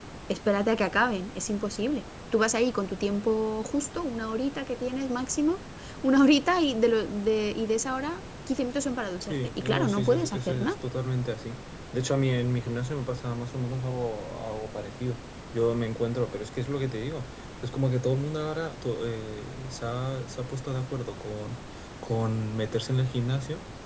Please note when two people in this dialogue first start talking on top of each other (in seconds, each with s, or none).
9.2 s